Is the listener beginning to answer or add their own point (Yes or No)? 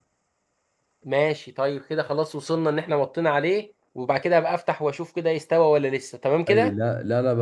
Yes